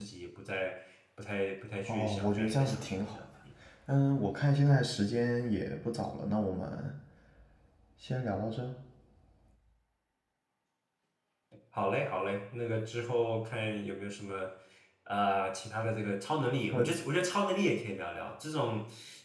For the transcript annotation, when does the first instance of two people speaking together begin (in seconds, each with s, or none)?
1.9 s